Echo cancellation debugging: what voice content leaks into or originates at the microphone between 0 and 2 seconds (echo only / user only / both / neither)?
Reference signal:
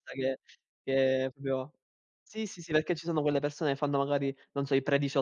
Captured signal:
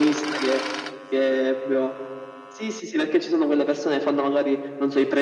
echo only